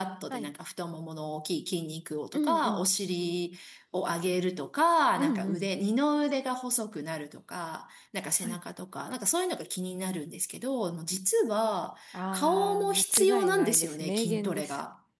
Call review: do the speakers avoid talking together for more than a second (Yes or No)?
No